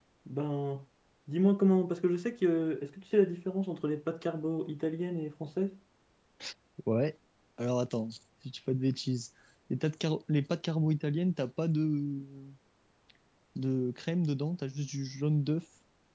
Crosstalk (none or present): none